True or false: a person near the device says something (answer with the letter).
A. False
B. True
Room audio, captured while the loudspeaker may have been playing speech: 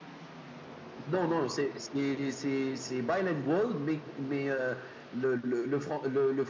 A